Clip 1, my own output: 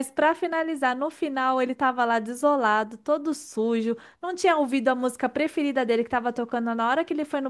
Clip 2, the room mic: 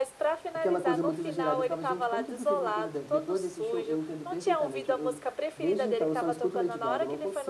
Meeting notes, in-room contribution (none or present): present